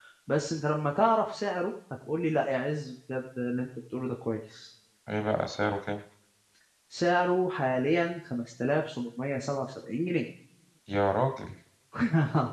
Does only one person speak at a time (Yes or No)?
Yes